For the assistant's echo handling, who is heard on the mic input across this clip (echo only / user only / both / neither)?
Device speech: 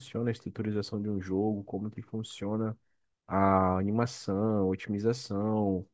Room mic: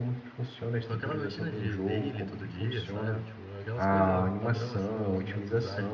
both